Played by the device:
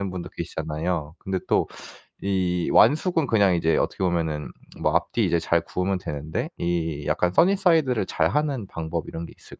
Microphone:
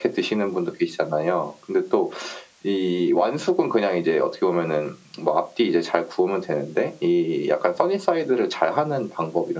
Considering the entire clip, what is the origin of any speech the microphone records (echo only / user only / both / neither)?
echo only